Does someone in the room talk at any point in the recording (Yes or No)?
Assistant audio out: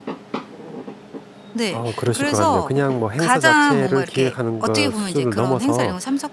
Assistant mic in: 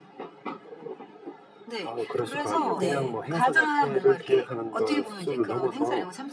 Yes